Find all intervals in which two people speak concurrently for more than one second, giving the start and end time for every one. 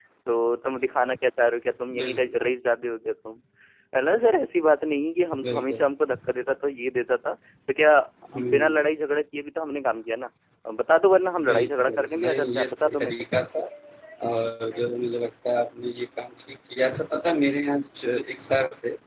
11.5-13.2

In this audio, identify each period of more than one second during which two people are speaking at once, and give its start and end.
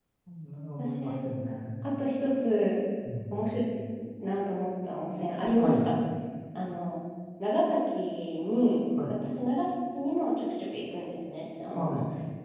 none

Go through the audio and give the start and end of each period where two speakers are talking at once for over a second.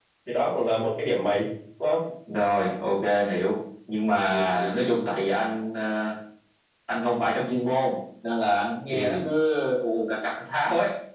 none

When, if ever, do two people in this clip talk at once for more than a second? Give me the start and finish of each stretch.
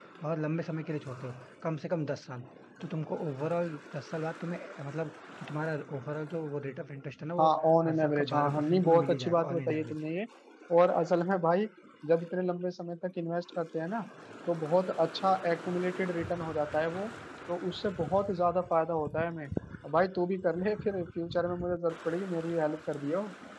7.4-10.0

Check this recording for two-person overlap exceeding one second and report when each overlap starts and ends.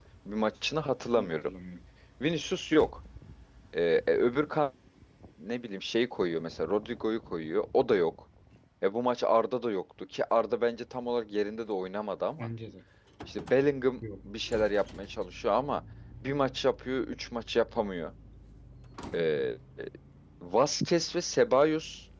none

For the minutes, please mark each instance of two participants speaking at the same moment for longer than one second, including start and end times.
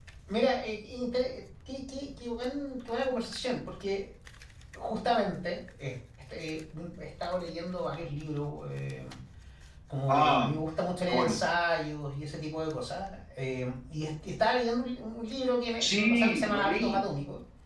15.8-17.0

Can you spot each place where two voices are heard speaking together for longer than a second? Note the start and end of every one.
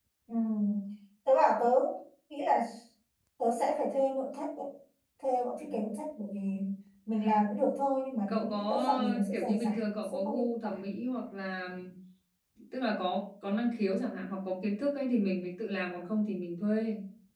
8.3-10.8

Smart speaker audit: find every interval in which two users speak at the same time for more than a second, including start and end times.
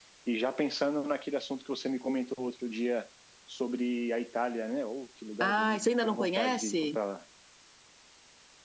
5.4-7.0

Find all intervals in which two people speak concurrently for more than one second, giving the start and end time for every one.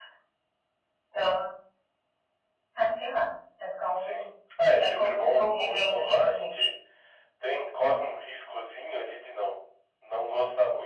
4.8-6.7

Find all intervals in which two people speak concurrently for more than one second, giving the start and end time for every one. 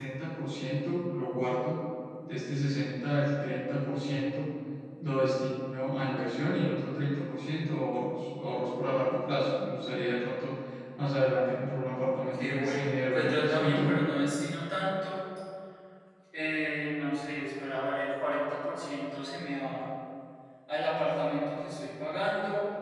12.3-13.9

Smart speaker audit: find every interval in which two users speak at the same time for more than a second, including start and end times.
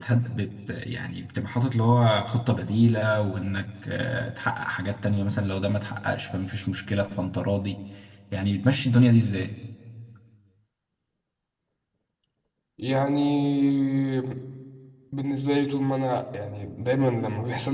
none

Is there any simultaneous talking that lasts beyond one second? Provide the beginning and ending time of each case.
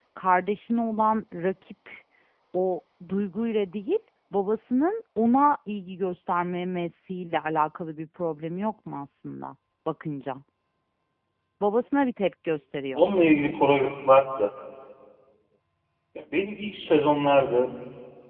none

